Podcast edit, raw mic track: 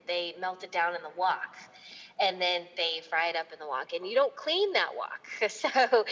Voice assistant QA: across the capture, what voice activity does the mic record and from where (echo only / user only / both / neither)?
echo only